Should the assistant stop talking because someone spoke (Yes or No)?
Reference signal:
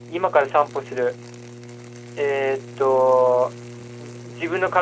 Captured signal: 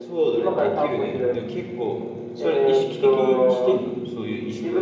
Yes